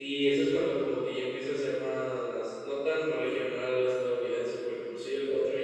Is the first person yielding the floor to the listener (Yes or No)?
No